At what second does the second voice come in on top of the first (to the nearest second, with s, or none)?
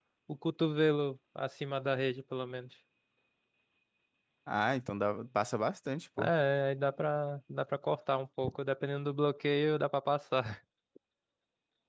none